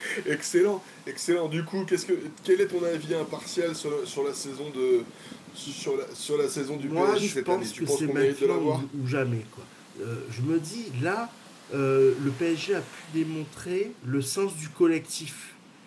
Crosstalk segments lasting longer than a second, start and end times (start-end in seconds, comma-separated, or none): 6.8-8.8